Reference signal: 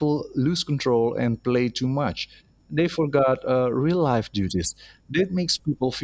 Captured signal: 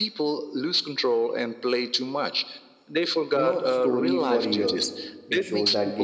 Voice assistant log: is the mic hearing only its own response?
No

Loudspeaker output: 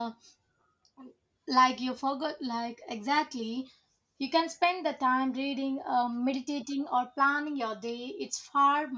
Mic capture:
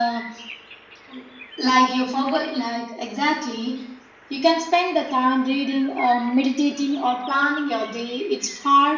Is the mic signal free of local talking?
Yes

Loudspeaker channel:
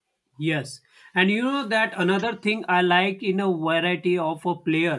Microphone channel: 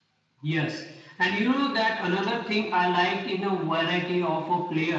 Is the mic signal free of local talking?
Yes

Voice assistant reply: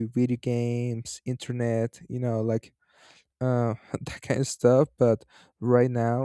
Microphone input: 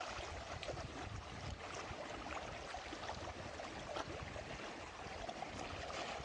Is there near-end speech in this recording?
No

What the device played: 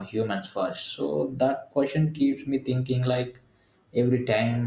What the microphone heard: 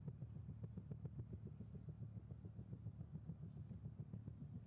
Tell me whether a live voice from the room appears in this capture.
No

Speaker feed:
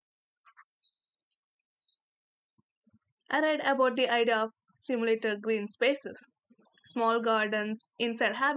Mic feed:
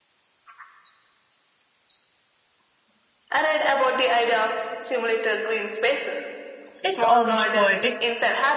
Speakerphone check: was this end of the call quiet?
No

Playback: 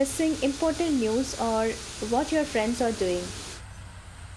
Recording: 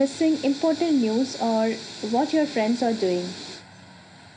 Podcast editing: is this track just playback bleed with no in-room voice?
Yes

